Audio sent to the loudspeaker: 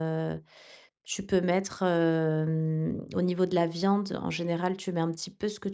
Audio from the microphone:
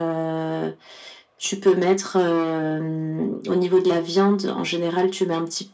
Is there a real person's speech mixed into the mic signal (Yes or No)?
No